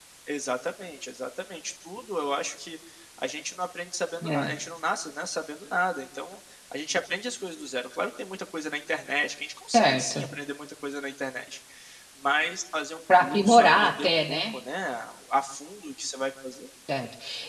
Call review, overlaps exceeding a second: present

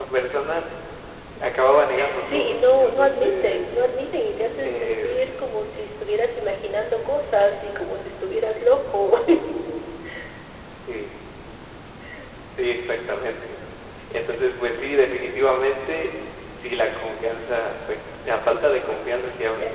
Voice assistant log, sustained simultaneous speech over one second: present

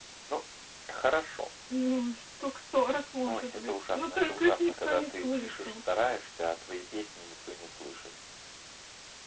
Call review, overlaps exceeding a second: present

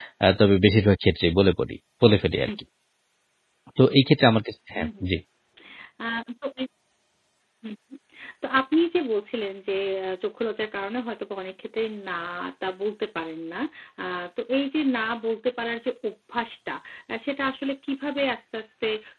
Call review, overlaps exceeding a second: none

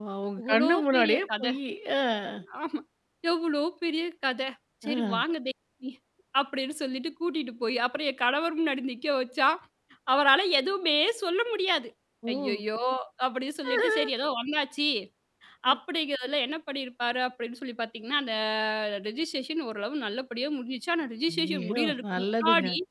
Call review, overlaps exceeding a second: present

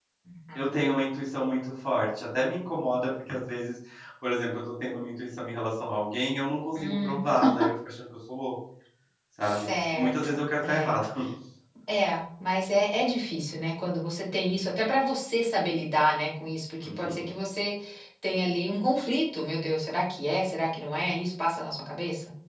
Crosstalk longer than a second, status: present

